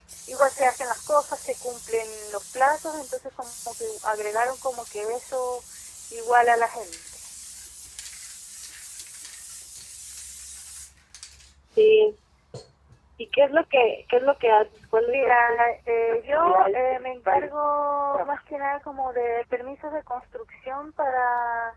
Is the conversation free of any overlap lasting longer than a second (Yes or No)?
No